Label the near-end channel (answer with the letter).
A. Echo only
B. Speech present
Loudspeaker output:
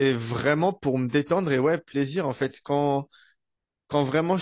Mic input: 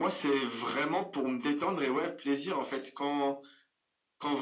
A